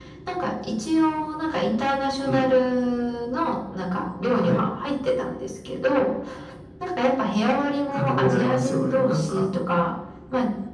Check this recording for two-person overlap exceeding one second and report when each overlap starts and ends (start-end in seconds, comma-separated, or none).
7.9-9.4